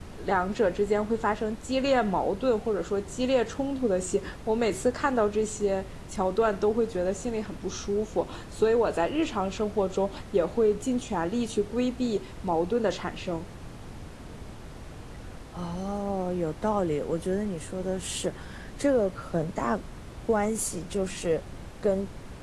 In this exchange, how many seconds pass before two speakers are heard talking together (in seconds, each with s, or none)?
none